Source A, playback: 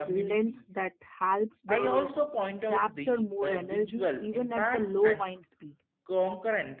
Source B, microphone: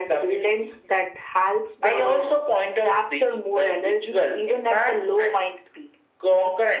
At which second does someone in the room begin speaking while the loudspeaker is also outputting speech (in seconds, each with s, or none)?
none